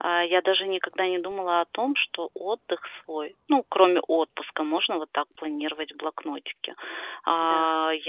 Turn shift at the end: No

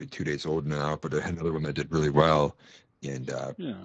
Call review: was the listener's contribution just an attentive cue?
Yes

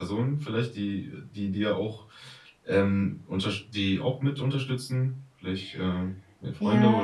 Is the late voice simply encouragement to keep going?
No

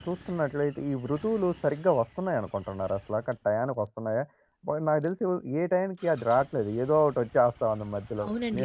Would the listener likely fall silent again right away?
No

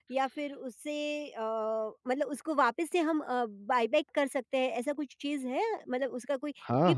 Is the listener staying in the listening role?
No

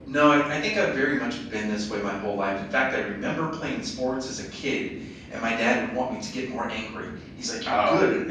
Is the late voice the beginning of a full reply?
No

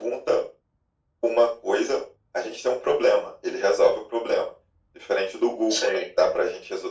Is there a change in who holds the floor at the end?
No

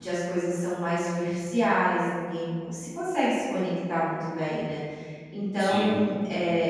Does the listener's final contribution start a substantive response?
No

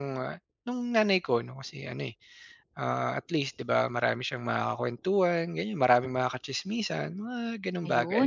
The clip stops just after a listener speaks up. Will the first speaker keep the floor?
No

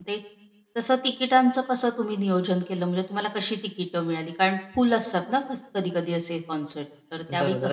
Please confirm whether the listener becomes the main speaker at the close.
Yes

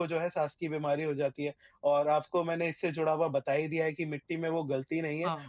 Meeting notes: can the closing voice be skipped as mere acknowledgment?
Yes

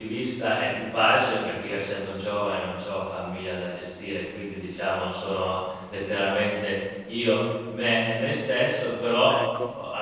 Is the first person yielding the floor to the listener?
No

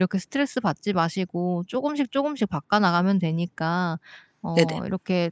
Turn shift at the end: No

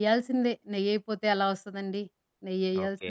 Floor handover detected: Yes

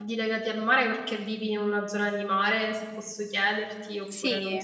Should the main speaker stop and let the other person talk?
Yes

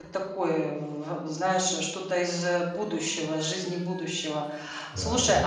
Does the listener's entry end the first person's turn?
No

